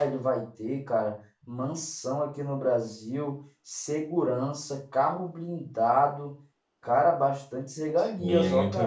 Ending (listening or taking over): taking over